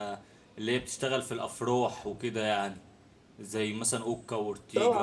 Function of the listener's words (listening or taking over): taking over